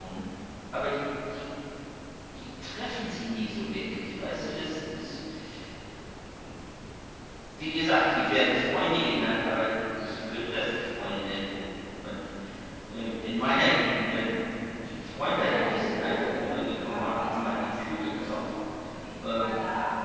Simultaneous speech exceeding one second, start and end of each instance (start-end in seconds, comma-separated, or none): 15.4-18.4